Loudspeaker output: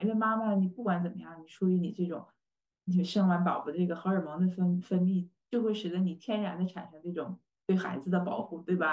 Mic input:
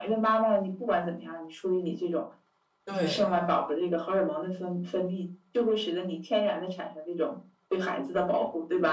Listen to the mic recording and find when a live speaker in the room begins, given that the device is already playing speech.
2.8 s

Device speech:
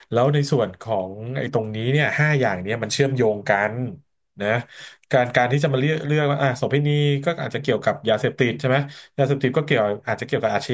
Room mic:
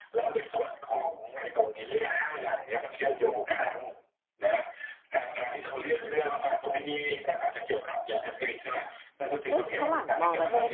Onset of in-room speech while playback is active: 9.5 s

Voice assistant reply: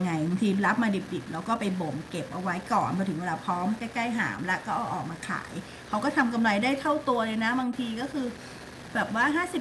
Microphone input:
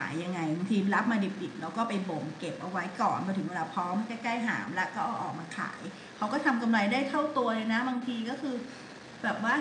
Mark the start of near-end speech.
none

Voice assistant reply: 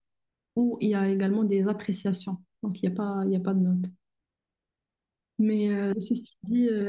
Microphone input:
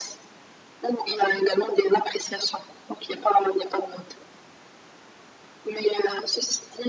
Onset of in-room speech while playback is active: none

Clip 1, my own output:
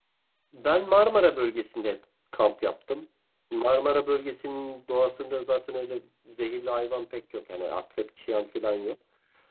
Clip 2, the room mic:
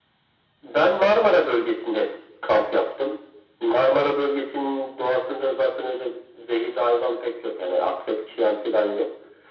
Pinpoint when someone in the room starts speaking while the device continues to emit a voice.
none

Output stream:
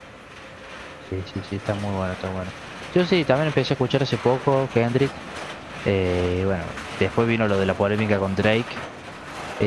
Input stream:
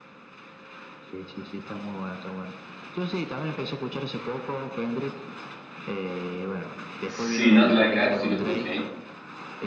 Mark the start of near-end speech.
7.0 s

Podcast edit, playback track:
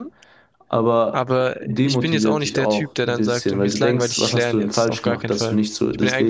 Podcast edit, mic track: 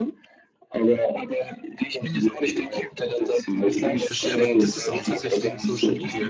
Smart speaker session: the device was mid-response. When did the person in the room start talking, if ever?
3.9 s

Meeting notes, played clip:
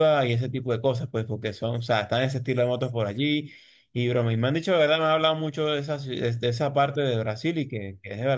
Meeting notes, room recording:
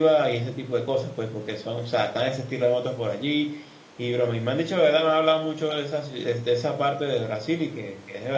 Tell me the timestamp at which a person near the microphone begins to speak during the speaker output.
none

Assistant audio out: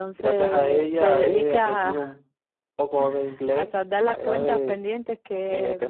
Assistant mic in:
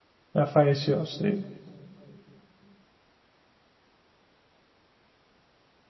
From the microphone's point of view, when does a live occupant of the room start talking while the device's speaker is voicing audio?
0.3 s

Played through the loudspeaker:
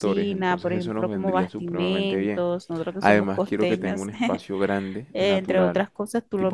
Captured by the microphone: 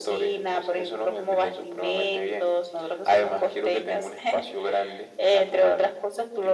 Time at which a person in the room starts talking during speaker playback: none

